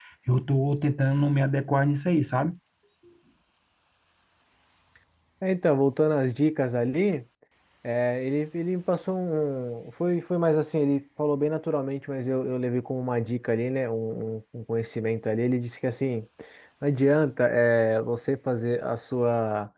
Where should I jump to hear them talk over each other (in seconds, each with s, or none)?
none